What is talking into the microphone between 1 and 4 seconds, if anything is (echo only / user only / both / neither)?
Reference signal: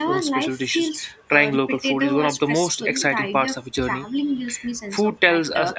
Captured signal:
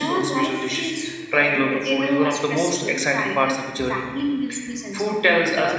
echo only